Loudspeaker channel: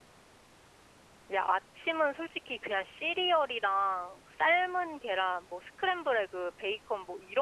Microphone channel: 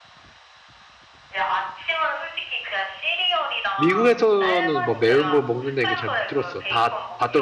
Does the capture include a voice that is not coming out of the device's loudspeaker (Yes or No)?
Yes